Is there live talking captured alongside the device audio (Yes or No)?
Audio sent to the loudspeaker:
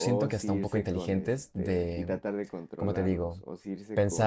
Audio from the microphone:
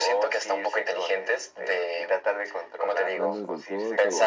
Yes